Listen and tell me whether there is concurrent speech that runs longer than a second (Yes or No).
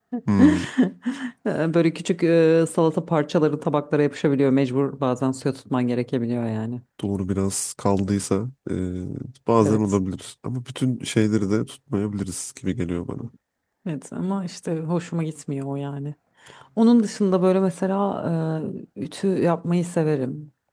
No